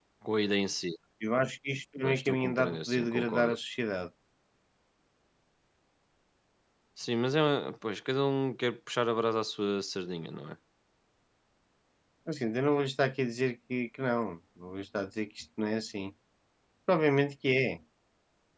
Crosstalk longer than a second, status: present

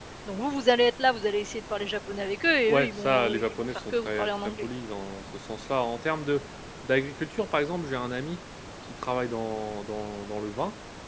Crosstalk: present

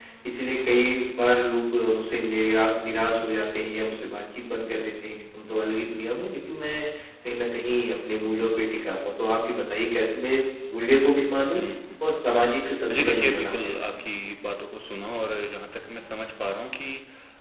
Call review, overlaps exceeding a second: present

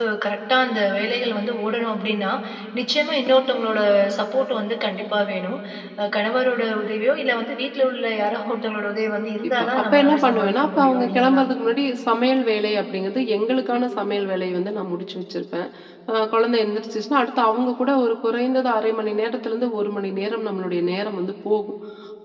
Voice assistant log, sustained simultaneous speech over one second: present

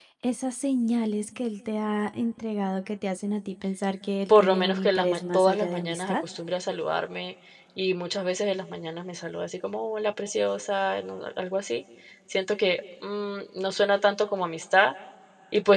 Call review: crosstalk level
present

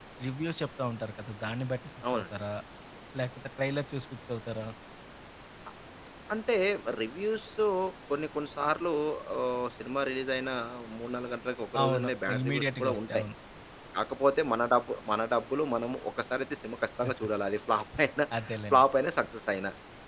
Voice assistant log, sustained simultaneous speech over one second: present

